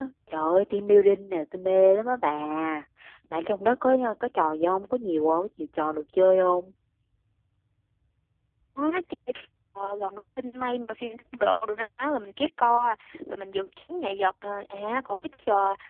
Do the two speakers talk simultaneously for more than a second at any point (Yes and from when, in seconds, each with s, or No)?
No